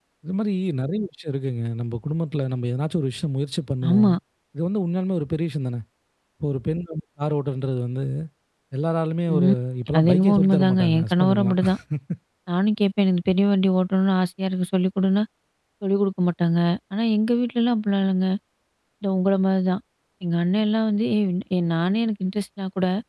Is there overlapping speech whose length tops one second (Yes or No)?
Yes